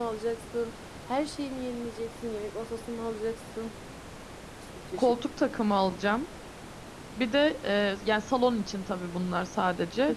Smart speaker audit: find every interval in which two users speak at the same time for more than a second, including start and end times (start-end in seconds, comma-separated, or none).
none